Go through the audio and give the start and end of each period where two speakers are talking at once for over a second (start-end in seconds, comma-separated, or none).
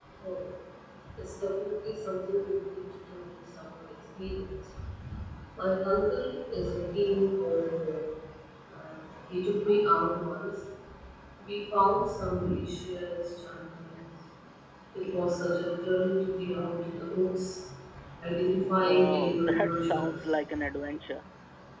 18.9-20.1